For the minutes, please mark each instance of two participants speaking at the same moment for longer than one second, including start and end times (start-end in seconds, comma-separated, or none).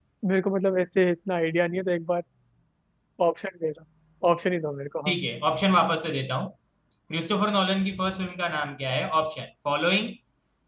none